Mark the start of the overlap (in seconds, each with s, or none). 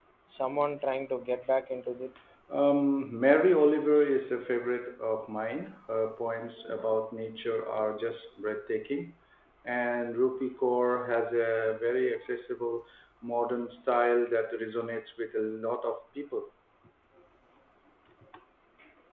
none